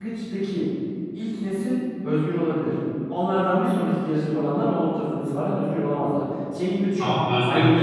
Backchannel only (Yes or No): No